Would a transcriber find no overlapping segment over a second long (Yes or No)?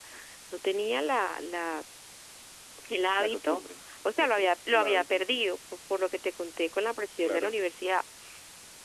No